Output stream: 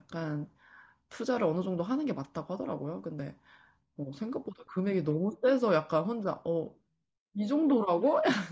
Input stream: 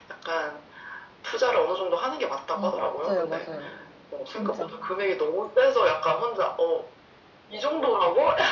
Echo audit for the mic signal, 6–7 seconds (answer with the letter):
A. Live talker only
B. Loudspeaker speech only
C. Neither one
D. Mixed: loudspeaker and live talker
B